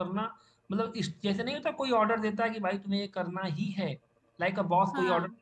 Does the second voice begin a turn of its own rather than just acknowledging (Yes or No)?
No